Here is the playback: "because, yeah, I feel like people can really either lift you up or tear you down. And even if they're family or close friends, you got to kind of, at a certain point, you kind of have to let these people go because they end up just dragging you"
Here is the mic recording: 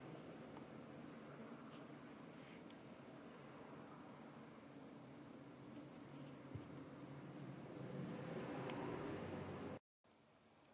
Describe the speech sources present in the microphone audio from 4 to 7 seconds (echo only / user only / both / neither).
neither